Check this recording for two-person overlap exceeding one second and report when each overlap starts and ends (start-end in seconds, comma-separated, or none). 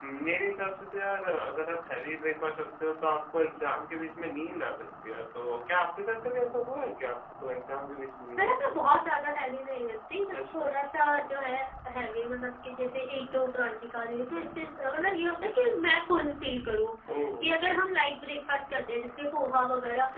none